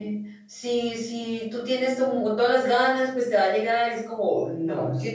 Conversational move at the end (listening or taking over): listening